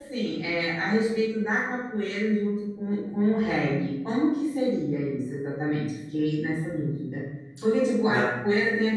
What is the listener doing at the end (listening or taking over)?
listening